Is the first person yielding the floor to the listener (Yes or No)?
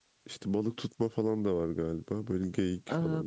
Yes